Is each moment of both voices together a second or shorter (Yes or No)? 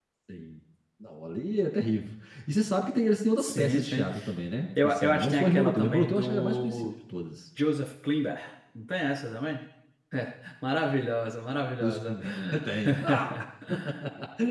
No